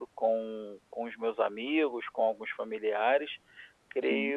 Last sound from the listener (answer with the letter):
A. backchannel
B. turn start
A